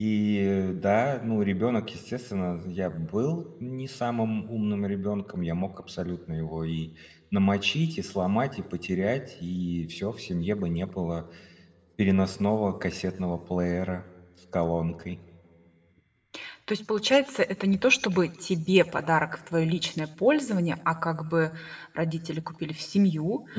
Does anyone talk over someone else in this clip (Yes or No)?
No